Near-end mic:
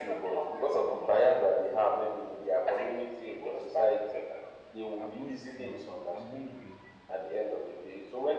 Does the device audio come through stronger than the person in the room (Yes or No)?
Yes